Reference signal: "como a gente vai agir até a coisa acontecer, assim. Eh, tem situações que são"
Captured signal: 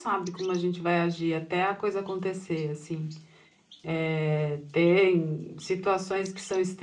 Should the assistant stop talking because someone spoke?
No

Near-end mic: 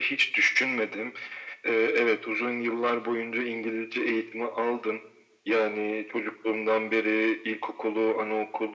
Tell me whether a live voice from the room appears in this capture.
No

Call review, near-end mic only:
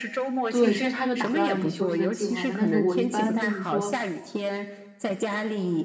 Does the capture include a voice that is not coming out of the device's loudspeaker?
Yes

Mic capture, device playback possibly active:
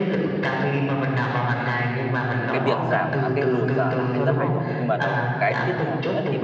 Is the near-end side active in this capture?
Yes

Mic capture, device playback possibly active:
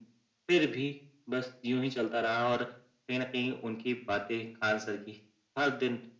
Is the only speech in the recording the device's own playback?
Yes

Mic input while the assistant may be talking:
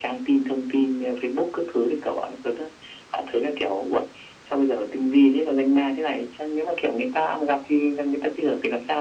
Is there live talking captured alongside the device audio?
No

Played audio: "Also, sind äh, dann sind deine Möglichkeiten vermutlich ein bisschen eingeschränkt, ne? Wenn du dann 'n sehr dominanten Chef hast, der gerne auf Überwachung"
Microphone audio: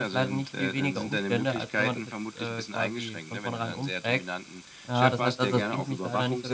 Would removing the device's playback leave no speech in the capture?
No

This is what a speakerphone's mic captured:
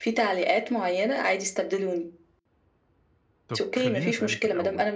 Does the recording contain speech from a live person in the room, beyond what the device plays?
Yes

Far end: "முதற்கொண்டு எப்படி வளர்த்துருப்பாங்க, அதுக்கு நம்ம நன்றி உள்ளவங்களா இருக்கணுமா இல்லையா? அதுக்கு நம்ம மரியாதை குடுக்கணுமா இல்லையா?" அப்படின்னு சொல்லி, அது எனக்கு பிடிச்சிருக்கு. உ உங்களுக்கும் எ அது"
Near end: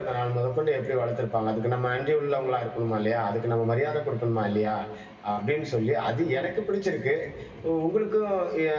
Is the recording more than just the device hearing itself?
No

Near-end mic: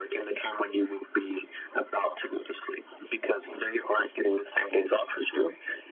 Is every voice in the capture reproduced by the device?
Yes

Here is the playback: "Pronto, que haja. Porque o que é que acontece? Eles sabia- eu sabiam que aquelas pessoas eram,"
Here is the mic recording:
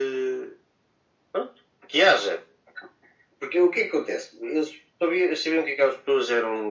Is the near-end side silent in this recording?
Yes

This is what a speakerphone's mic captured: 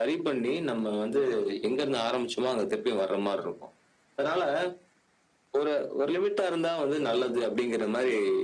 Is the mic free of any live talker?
Yes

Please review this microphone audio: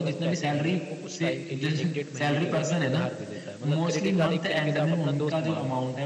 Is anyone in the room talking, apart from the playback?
Yes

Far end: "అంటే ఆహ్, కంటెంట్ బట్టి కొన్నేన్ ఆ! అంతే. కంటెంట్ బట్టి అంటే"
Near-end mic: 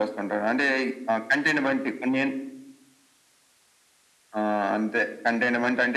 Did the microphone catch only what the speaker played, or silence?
Yes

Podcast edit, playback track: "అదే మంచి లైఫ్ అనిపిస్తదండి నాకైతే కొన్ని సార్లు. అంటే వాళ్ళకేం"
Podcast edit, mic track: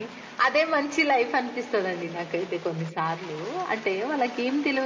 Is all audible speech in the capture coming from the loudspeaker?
Yes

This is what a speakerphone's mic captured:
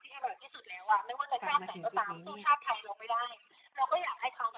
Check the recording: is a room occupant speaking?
Yes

